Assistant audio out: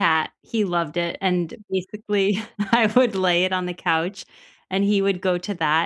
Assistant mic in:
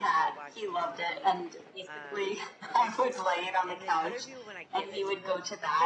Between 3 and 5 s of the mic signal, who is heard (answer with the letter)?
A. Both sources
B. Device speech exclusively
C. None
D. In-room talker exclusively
A